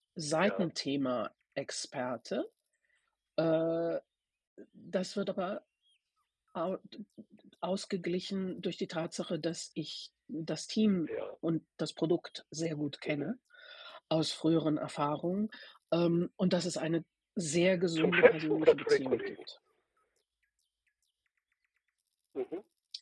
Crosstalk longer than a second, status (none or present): present